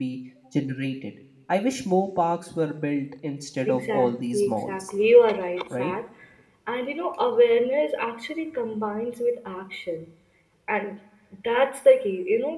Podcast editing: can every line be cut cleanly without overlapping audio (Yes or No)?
No